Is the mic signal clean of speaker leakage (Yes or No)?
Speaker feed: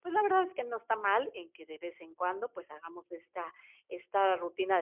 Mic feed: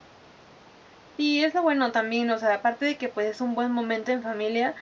Yes